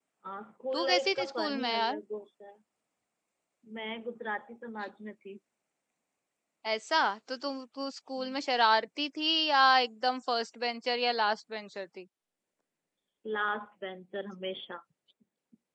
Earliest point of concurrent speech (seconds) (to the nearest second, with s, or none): 1 s